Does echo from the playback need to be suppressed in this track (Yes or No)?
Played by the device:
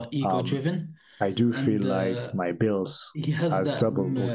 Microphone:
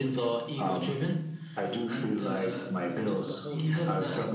Yes